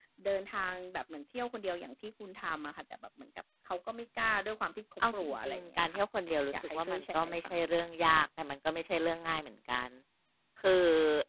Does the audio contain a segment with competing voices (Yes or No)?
Yes